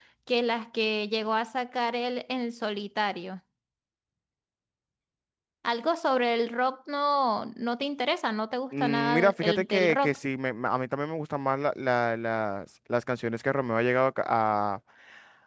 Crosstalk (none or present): present